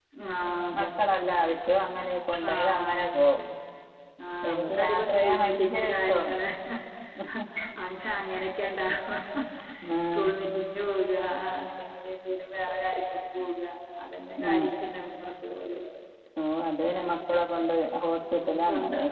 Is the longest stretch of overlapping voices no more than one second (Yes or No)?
No